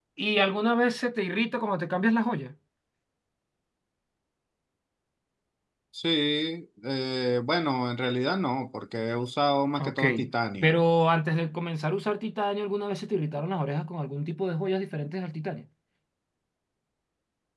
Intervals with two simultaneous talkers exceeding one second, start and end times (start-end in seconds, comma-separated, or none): none